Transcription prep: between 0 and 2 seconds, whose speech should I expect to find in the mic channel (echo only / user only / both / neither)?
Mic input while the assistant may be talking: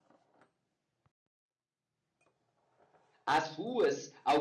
neither